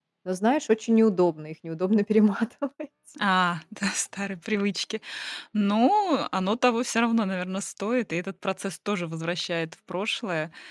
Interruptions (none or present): none